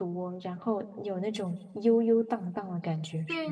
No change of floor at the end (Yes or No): No